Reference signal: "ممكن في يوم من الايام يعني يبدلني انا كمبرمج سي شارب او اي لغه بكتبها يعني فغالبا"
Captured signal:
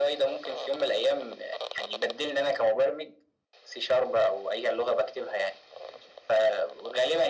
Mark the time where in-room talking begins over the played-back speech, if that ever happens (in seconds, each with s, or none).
none